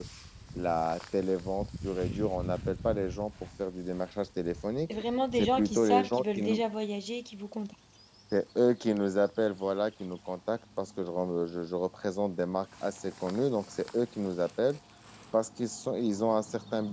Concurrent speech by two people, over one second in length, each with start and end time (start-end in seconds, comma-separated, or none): 5.4-6.6